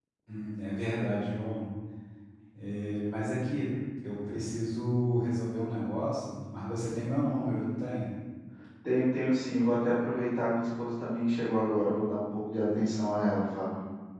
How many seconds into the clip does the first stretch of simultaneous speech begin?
none

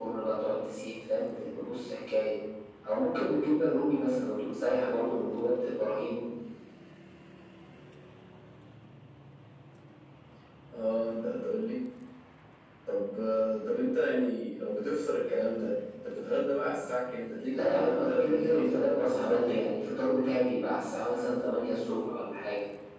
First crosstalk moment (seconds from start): 17.5 s

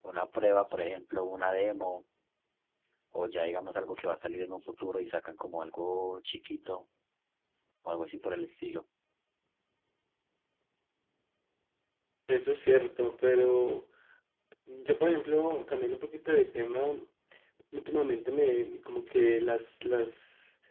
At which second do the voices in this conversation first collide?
none

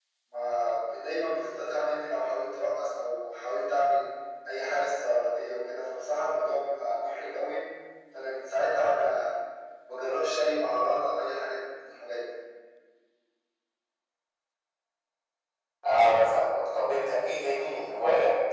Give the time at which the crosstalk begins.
none

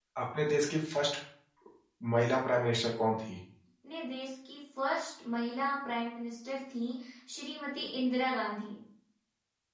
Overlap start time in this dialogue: none

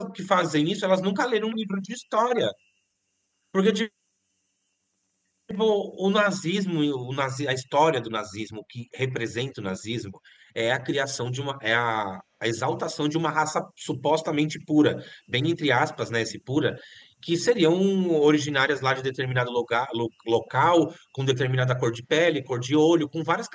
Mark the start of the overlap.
none

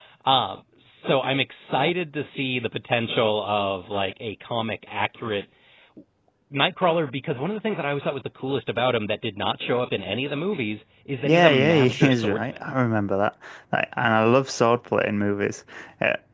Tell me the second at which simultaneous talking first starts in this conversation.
11.2 s

